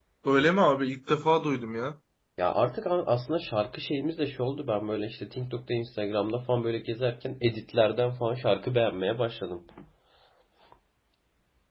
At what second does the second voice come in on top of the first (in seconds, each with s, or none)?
none